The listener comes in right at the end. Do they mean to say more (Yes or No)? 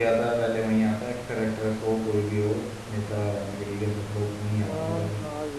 Yes